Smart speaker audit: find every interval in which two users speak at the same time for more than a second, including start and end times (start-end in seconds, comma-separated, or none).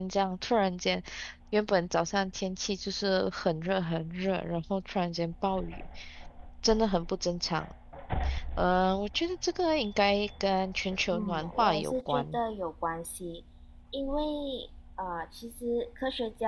11.1-12.4